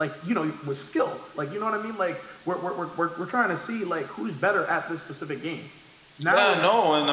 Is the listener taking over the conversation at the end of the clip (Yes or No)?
Yes